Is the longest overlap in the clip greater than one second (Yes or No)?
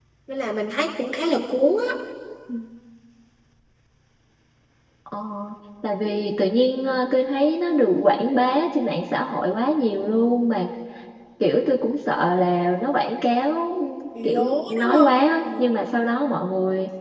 Yes